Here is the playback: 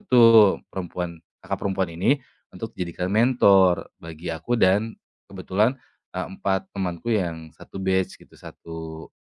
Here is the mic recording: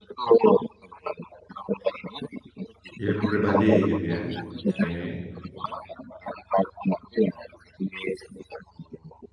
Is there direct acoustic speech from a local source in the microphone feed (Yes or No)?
Yes